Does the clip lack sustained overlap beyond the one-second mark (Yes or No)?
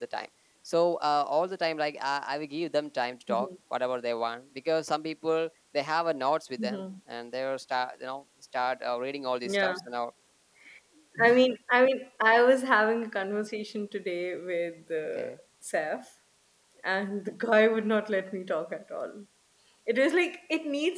Yes